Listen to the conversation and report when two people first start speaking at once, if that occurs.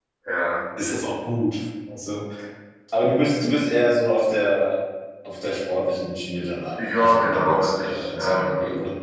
6.8 s

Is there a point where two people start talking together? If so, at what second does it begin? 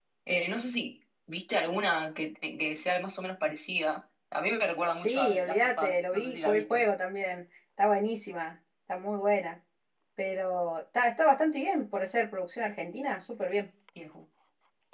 5.0 s

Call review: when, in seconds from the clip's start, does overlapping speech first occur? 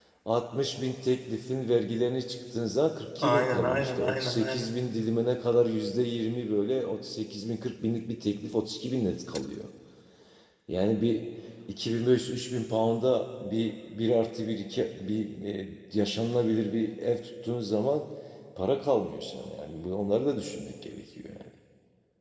3.2 s

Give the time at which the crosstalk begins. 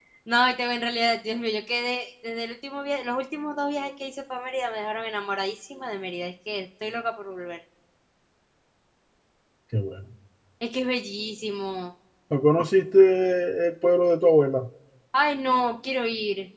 none

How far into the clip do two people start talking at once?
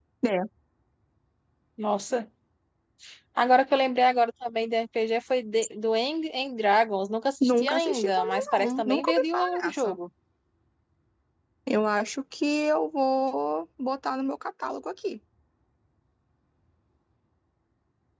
7.4 s

